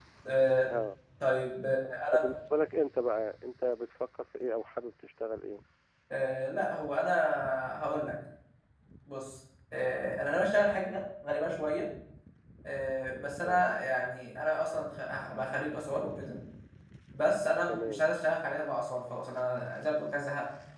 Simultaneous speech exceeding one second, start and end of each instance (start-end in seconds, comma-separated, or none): none